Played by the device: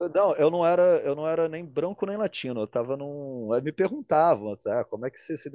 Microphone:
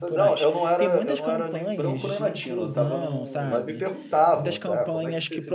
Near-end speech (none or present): present